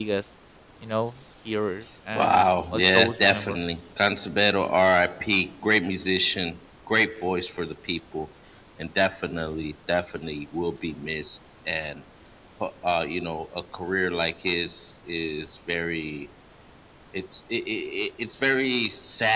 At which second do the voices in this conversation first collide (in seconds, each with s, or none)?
2.1 s